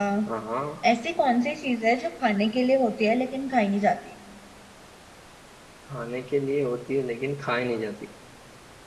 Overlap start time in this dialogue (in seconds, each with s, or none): none